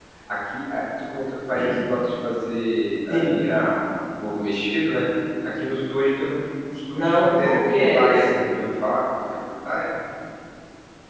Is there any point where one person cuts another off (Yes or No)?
Yes